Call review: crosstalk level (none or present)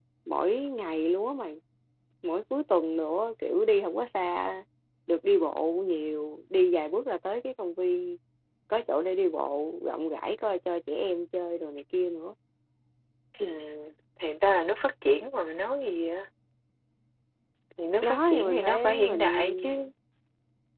present